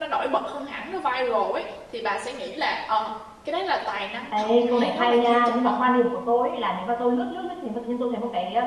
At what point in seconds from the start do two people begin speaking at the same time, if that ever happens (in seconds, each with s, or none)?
4.3 s